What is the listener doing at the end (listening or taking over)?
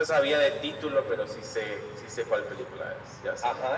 taking over